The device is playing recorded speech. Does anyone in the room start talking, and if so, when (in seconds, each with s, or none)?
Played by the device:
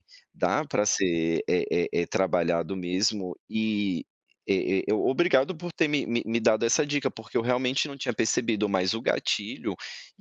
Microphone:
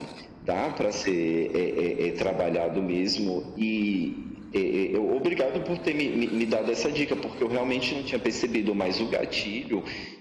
none